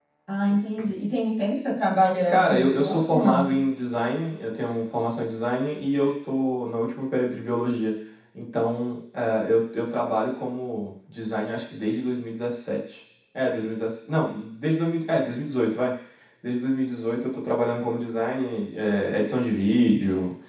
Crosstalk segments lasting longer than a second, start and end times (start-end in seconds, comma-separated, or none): 2.3-3.6